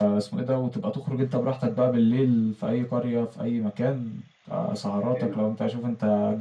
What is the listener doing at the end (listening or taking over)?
listening